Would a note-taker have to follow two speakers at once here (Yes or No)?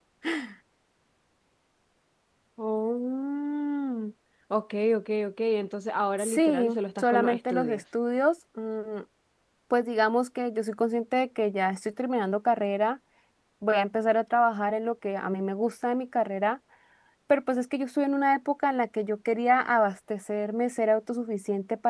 Yes